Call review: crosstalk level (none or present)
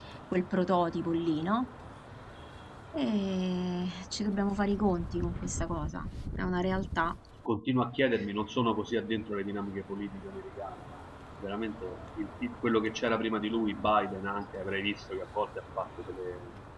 none